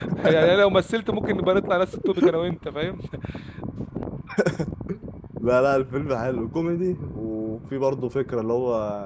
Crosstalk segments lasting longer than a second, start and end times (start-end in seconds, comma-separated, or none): none